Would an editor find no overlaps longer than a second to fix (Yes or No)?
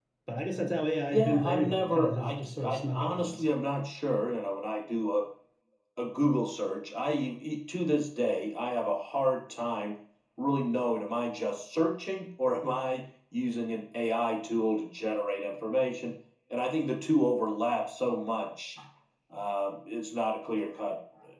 No